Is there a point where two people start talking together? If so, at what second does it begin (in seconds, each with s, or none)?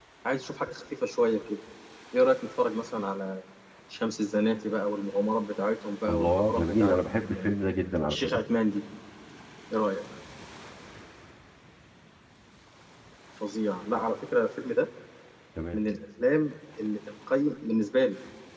6.1 s